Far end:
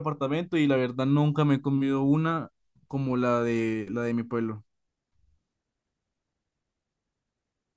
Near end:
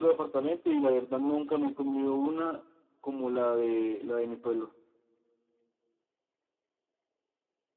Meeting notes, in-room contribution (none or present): none